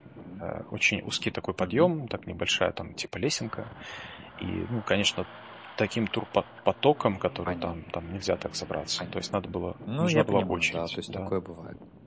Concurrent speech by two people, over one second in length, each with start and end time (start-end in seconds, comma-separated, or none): 10.0-11.3